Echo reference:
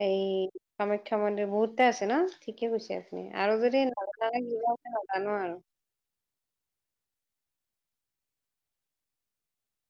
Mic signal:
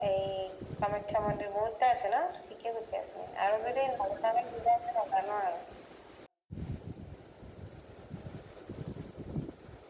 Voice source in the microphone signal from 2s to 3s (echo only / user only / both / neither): echo only